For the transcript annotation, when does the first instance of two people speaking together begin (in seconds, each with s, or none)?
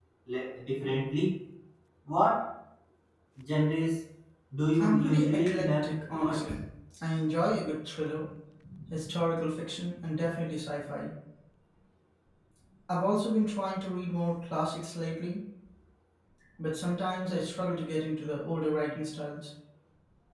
4.8 s